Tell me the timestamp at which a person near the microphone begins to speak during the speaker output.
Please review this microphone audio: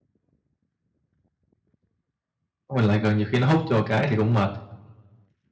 2.8 s

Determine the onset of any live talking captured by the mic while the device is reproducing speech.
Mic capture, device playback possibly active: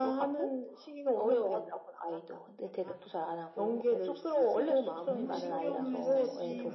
5.0 s

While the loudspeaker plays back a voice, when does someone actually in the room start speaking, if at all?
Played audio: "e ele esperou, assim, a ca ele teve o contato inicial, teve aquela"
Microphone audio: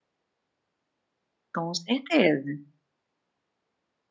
1.5 s

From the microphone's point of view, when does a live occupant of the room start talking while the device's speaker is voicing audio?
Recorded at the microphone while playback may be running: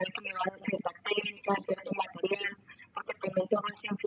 none

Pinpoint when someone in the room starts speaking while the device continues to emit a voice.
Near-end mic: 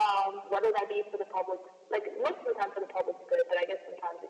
none

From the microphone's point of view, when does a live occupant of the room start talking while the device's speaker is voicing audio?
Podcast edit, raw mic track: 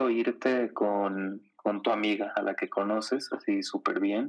none

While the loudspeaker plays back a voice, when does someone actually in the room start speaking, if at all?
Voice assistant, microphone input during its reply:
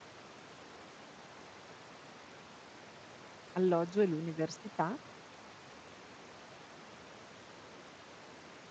3.5 s

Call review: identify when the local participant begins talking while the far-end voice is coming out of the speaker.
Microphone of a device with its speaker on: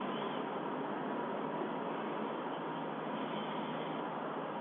none

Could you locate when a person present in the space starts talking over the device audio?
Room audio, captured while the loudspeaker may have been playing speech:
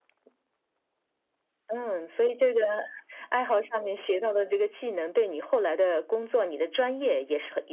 none

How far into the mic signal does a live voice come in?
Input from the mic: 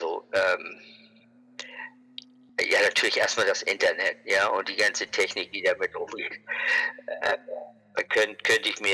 none

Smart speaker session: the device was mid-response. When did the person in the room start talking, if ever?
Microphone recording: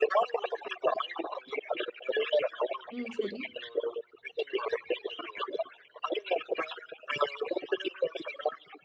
2.9 s

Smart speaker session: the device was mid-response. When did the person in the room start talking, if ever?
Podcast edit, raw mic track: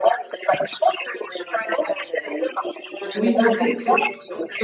3.1 s

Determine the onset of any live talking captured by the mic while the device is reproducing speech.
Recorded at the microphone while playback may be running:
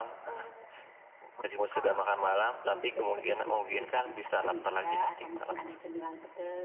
none

